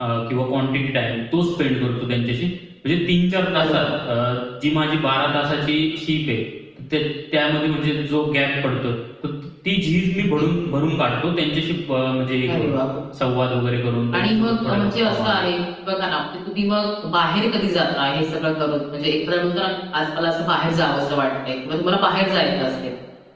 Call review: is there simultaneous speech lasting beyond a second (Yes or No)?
Yes